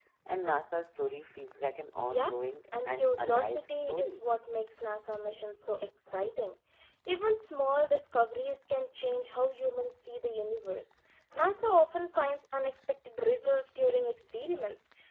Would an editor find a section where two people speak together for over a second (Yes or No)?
Yes